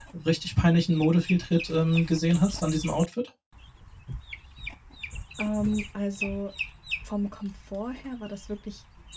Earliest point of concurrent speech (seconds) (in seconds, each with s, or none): none